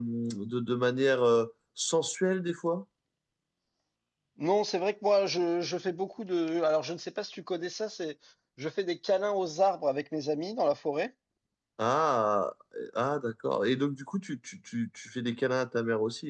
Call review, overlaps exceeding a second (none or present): none